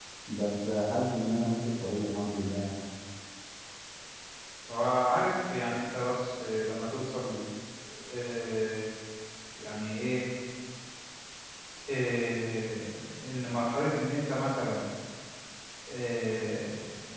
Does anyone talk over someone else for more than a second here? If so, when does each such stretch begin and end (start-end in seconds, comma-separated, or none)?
none